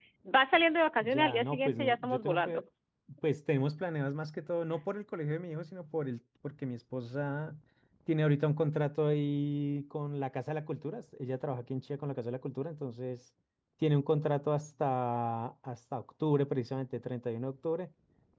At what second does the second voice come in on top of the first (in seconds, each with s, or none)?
1.0 s